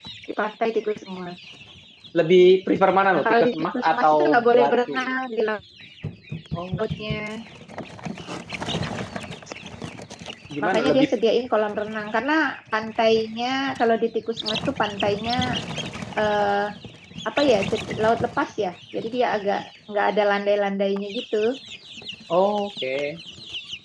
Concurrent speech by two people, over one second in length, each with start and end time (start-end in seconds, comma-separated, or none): 3.1-5.0